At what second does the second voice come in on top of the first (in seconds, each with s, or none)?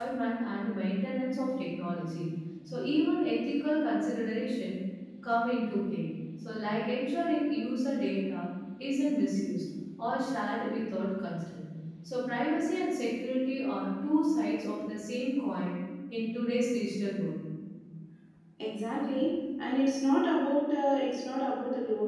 none